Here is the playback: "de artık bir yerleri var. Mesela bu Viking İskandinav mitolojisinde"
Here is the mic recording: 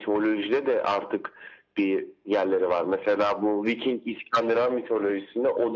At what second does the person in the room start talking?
none

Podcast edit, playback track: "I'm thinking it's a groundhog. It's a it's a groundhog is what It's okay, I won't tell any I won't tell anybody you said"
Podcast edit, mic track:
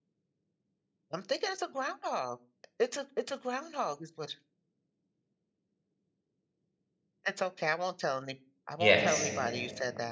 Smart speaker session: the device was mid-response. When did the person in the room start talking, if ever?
8.8 s

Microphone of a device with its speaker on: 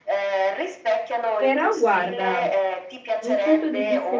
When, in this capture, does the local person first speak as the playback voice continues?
1.3 s

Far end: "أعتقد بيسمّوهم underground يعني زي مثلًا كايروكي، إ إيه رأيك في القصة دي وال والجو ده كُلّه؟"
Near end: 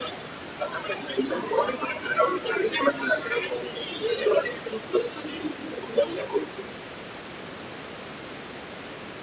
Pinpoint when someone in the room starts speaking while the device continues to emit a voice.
none

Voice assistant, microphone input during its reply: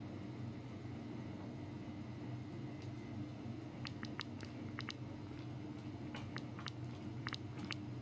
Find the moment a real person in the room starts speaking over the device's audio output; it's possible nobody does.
none

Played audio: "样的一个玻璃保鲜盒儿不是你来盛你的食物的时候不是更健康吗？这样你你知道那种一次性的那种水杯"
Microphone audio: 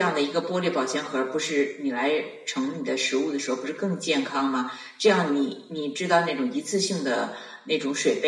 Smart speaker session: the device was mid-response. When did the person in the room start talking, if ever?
none

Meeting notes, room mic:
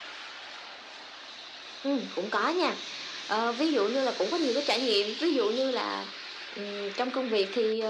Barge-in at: none

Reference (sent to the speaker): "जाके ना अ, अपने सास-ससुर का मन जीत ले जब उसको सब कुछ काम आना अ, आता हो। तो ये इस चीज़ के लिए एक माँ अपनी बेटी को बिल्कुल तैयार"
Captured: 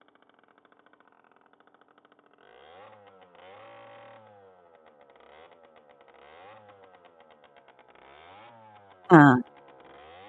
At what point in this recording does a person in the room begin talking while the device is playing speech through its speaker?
9.1 s

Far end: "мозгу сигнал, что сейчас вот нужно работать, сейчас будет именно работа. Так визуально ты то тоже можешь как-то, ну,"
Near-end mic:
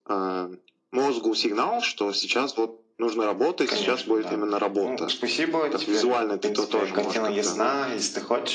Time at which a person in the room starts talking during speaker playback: 3.7 s

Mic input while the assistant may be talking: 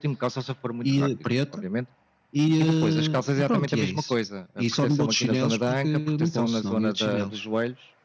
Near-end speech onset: none

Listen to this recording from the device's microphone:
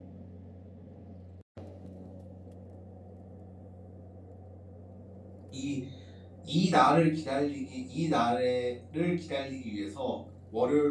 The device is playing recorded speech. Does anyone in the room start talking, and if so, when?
5.5 s

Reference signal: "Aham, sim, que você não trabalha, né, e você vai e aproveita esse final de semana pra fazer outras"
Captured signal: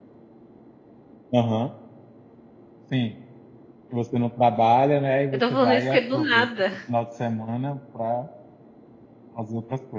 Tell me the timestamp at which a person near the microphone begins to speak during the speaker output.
5.3 s

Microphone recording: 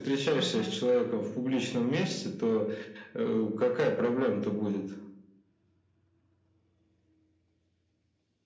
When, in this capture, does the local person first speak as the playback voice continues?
0.4 s

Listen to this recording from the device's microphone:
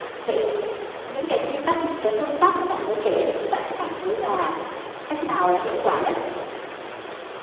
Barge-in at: none

